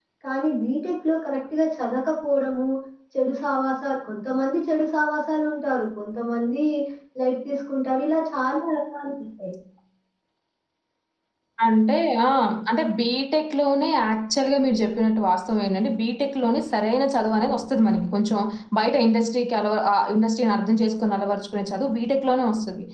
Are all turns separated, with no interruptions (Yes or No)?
Yes